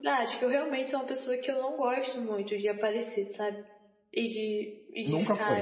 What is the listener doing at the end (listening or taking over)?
listening